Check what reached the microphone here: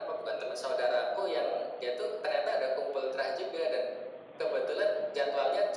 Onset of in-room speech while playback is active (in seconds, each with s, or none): none